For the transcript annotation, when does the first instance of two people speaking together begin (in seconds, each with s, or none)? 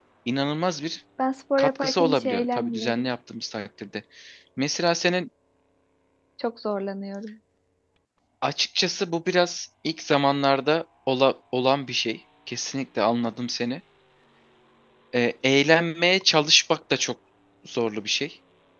1.6 s